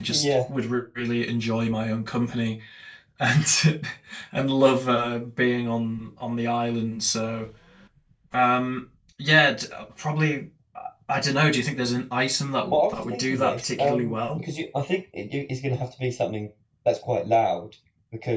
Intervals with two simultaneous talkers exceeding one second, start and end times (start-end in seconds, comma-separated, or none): 12.7-14.4